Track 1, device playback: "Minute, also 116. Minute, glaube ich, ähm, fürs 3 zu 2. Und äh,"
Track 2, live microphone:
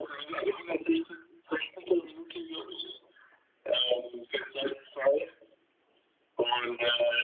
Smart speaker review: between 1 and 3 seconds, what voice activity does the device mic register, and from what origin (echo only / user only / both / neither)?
echo only